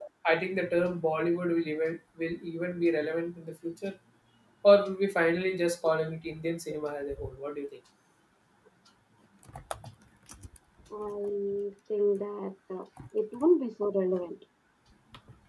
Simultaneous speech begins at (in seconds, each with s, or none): none